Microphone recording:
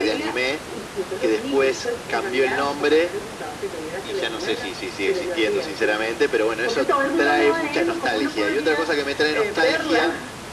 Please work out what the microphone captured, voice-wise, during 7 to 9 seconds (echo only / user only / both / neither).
echo only